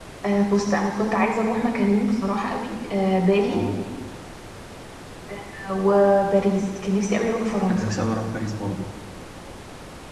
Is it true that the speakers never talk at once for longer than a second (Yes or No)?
Yes